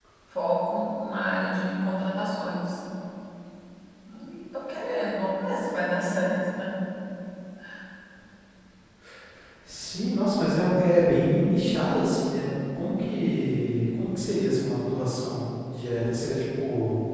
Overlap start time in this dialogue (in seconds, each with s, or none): none